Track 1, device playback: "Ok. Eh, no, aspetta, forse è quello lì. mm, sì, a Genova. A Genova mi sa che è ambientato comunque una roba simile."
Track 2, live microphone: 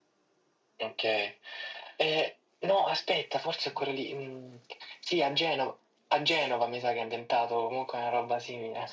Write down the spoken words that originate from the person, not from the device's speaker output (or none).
none